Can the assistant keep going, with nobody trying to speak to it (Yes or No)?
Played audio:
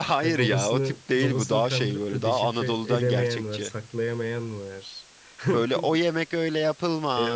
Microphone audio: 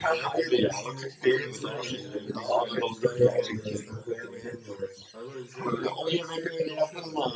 No